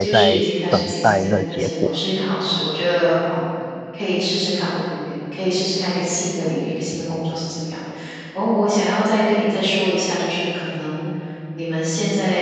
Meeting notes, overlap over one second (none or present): present